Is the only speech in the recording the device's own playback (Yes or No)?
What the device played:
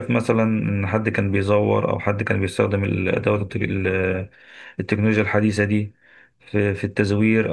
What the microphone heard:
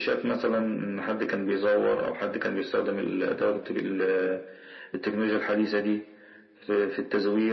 Yes